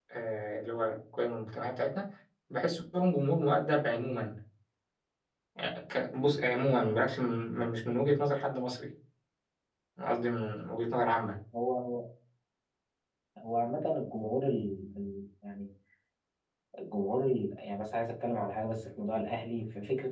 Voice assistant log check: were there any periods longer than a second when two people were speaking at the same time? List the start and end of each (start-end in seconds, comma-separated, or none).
none